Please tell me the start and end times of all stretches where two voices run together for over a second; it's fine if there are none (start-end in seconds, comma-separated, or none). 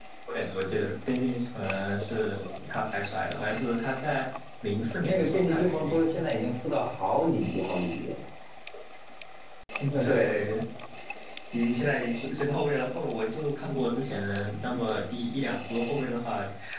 5.0-6.2